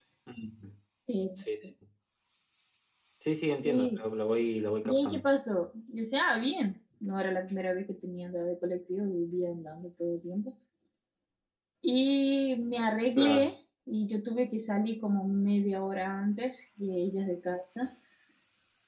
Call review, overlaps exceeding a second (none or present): none